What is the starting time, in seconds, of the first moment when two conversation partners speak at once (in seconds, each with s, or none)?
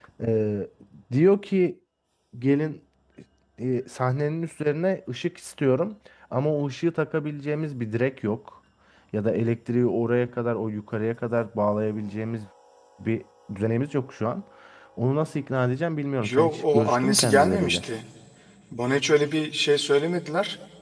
16.2 s